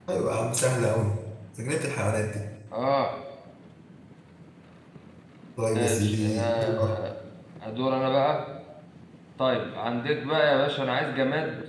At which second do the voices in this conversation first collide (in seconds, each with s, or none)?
5.7 s